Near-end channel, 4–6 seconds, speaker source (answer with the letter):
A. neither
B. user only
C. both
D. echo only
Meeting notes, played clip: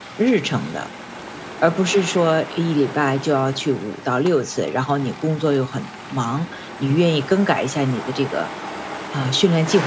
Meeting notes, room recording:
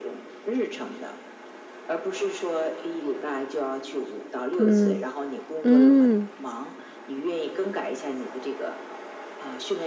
C